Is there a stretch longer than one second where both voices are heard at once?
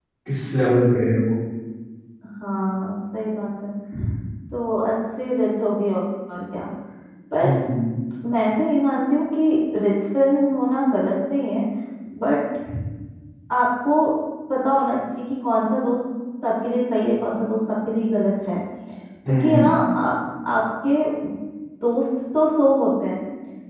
No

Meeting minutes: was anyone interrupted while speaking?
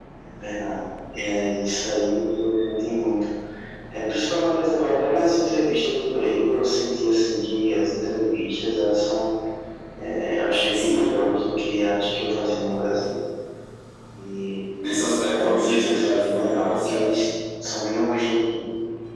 Yes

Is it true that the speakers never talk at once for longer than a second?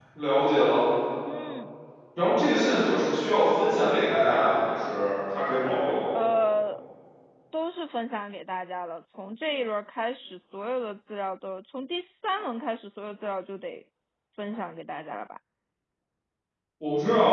Yes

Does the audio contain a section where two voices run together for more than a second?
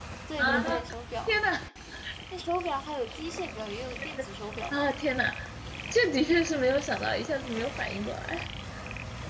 No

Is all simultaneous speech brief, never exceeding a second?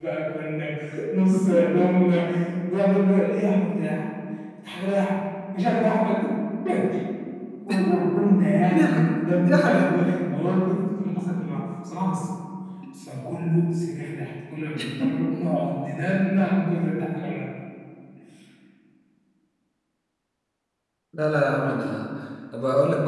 No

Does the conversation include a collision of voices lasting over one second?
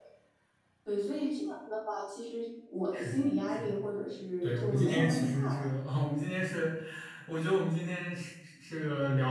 Yes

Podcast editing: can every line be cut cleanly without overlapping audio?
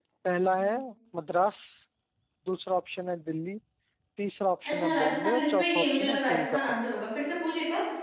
No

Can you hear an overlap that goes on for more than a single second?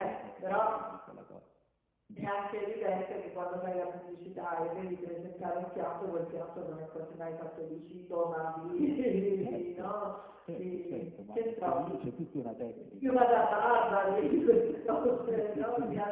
Yes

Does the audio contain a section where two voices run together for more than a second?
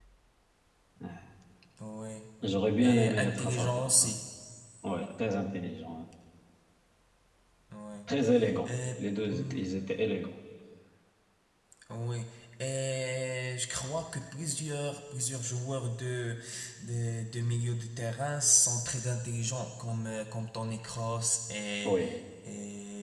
Yes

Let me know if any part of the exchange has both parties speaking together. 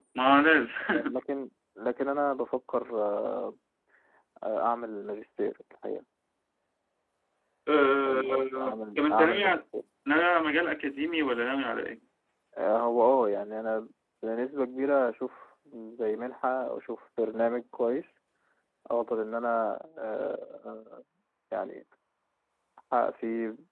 Yes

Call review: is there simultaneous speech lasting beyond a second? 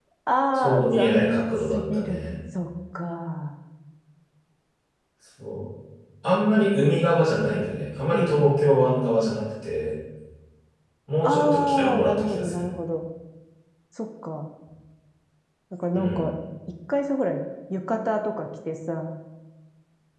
Yes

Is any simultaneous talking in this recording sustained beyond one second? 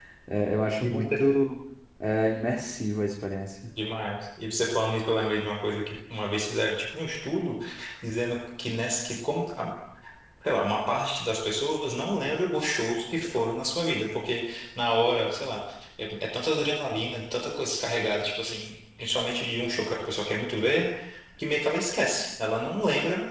No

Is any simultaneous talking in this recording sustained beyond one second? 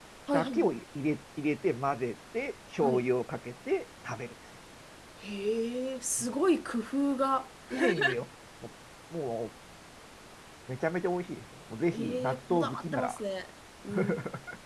Yes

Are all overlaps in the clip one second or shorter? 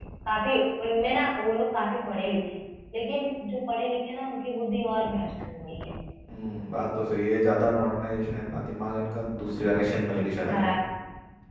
Yes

